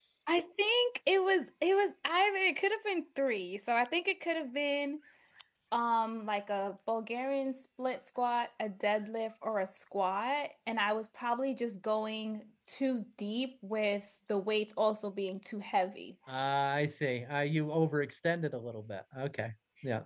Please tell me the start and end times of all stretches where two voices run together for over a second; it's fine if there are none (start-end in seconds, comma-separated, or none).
none